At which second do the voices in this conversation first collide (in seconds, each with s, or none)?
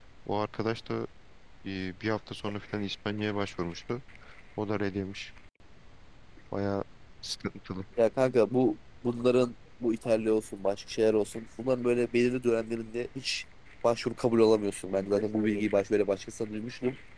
none